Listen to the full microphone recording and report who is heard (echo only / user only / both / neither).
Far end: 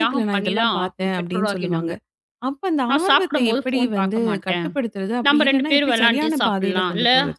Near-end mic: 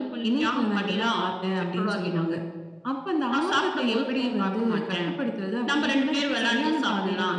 echo only